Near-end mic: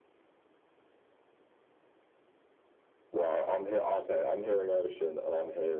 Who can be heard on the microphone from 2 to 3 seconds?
neither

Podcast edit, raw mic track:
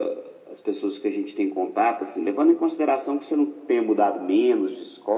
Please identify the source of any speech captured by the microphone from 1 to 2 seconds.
echo only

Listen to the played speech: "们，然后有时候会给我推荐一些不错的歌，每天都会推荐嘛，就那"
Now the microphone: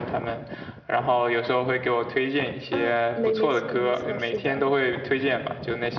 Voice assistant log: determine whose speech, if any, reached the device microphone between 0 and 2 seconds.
echo only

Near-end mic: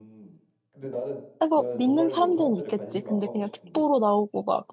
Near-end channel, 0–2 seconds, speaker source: both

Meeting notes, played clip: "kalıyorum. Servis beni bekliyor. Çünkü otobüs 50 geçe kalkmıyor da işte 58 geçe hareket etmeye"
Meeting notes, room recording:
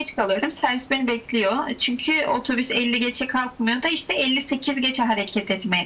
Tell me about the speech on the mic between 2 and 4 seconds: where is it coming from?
echo only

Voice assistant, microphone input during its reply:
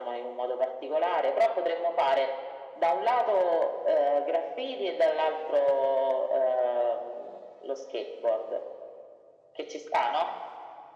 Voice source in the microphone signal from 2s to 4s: echo only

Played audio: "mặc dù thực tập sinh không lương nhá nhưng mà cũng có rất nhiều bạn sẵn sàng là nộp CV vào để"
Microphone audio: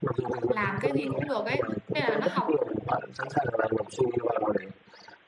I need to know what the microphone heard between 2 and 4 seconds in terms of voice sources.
both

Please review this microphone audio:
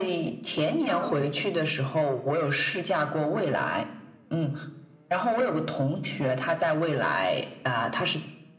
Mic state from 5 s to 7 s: echo only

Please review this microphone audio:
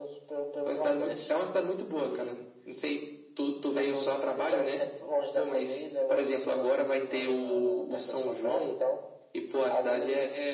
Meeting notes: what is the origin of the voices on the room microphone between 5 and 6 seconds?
echo only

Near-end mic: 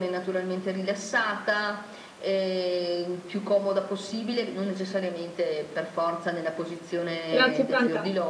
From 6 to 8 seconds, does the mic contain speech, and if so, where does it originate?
both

